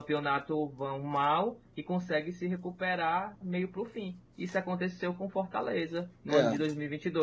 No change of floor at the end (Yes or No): Yes